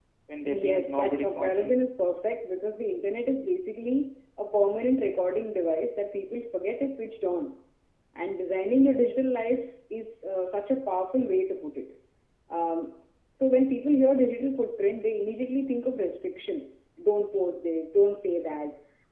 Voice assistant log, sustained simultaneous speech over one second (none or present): present